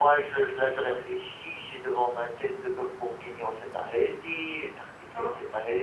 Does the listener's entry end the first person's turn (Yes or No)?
No